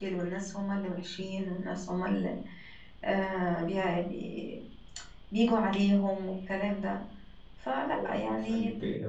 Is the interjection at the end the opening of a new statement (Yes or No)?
Yes